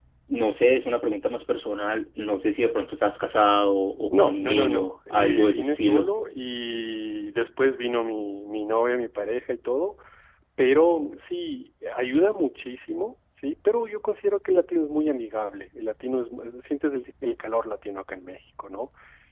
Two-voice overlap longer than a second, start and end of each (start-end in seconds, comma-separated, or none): 4.1-6.1